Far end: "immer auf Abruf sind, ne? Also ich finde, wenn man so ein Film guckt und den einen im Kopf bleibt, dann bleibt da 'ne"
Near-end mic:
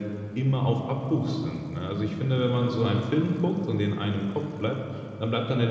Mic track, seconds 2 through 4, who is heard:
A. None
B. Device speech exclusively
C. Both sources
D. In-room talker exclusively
B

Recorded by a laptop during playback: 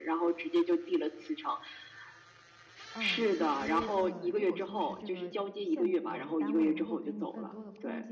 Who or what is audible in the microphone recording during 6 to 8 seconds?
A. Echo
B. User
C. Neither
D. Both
D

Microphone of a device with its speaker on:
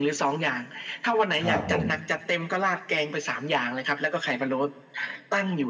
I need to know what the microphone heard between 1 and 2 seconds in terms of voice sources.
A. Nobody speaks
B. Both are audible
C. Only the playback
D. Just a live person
B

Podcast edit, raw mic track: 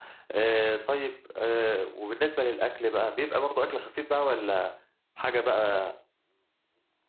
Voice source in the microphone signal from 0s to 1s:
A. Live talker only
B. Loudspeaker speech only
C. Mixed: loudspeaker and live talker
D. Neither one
A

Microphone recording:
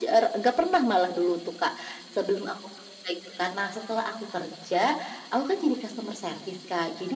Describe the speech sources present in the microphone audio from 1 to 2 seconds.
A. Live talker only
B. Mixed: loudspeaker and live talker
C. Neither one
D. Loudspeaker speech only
D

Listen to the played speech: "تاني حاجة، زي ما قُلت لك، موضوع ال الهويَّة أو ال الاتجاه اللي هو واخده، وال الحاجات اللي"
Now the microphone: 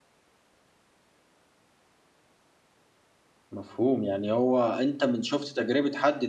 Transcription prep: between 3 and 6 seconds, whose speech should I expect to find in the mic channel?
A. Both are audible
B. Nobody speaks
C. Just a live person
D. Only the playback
C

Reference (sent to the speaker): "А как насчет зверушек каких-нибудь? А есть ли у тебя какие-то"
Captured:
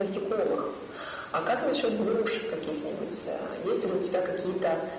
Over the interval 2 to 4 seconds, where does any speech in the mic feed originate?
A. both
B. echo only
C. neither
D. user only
B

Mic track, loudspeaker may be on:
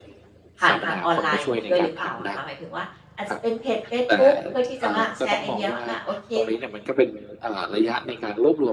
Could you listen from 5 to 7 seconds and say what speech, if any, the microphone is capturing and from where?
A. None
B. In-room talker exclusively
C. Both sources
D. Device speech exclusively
C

